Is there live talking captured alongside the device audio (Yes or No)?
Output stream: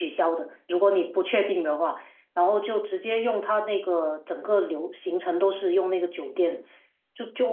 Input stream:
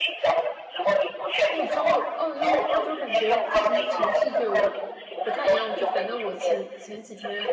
Yes